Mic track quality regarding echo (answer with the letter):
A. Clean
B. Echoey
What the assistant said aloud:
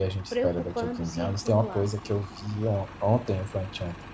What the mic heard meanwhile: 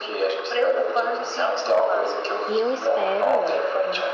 B